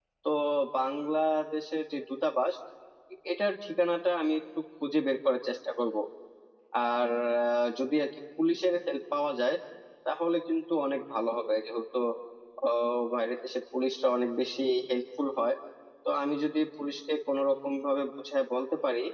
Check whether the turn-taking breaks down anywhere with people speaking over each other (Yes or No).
No